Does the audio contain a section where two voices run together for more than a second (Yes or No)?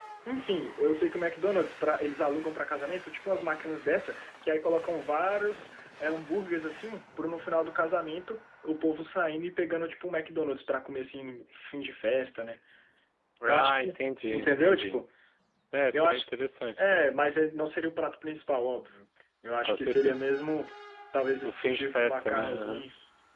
Yes